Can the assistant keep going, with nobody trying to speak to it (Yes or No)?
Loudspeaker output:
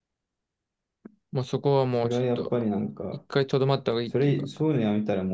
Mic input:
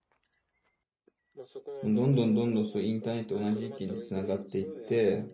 No